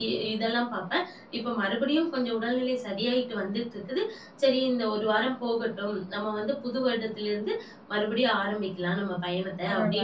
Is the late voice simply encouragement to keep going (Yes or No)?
Yes